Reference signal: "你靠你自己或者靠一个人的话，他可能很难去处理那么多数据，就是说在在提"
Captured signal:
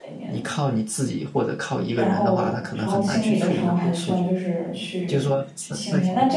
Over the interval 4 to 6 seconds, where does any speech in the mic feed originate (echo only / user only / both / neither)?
both